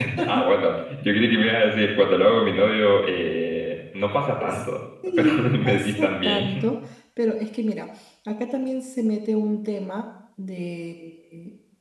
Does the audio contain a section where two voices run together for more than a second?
Yes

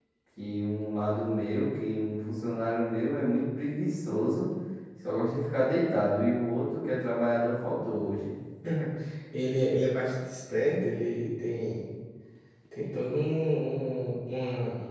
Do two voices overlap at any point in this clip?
No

